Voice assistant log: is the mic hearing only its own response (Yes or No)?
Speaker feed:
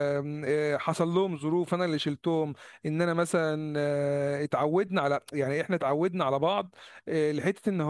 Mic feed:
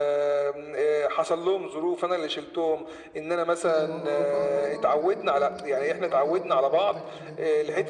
No